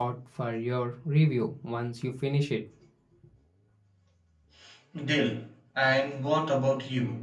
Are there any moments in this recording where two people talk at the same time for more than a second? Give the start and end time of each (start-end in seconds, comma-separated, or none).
none